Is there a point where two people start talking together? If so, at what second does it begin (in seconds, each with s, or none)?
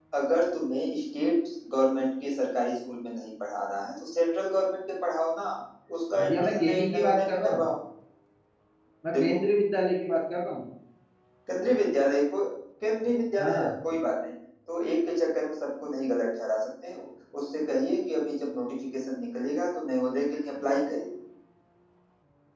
6.2 s